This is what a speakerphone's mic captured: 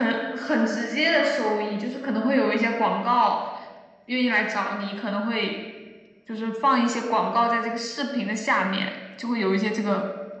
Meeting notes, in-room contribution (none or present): none